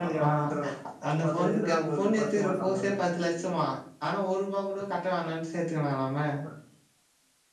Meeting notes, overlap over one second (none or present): present